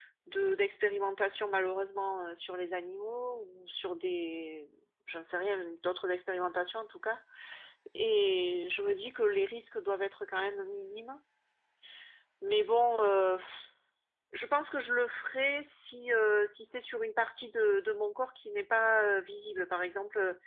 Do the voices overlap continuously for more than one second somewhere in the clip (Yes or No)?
No